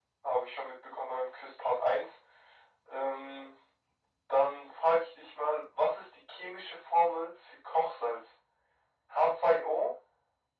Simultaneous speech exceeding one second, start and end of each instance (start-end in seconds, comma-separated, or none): none